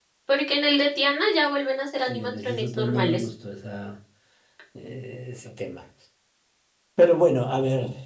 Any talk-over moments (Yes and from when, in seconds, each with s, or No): Yes, from 2.1 s